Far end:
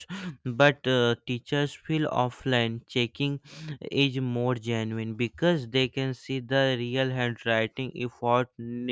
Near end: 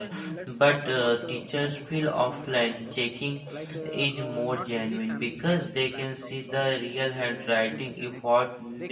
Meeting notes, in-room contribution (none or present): present